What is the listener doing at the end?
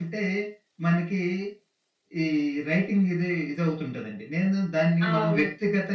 listening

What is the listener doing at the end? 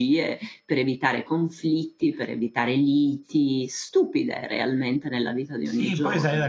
taking over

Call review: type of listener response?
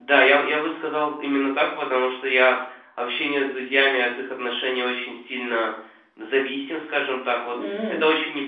listening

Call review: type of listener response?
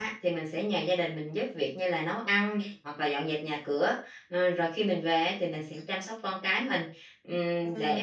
listening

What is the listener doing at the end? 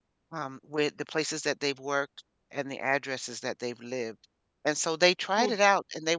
listening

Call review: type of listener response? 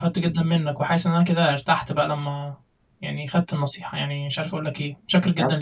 taking over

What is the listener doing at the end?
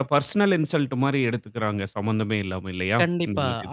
taking over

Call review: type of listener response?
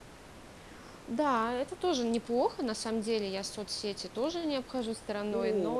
taking over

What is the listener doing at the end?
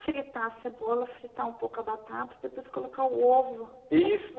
taking over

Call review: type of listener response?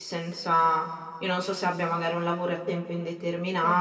listening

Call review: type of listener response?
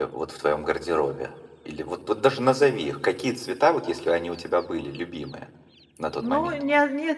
taking over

